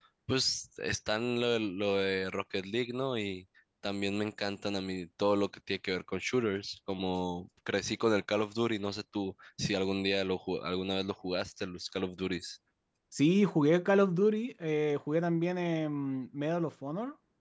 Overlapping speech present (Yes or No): No